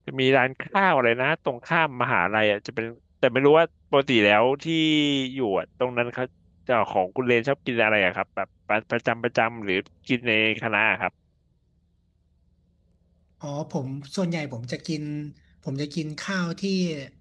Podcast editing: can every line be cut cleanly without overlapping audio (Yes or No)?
Yes